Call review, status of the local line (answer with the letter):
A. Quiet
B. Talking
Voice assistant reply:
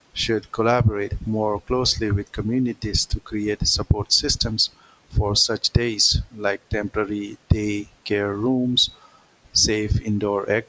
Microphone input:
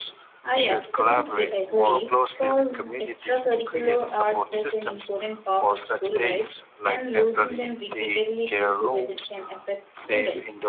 B